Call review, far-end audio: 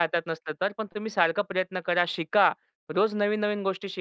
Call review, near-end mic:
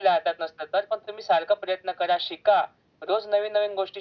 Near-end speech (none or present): none